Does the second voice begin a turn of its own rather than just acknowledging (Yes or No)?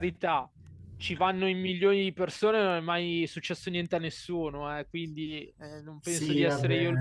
Yes